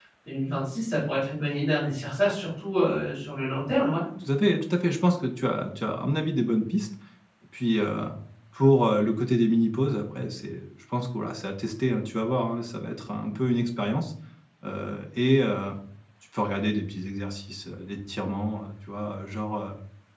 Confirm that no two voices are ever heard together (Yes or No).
Yes